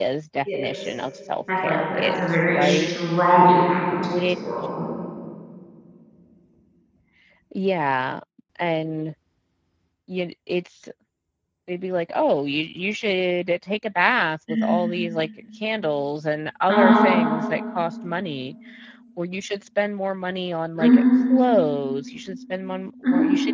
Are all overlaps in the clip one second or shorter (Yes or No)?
No